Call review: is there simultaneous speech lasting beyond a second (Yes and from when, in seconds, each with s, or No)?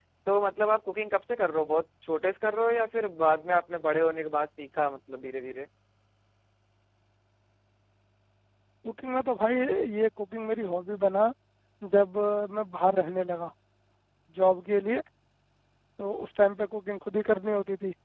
No